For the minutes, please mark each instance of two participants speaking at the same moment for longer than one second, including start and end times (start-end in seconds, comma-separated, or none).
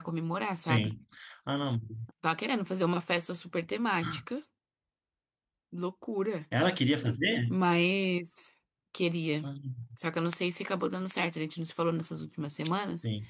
none